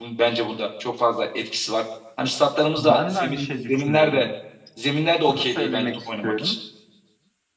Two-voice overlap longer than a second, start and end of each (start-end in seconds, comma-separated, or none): 2.8-4.3, 5.3-6.6